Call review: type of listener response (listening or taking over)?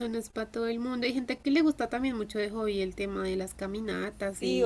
taking over